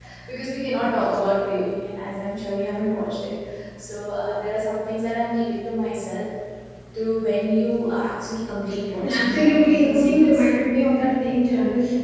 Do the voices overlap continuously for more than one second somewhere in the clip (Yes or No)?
Yes